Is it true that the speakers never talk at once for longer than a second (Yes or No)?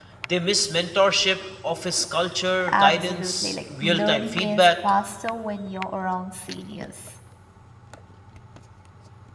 No